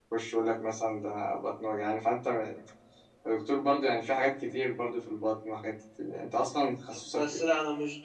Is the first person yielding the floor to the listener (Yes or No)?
Yes